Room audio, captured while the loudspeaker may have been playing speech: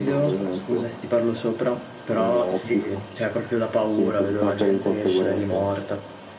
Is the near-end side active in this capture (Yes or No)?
No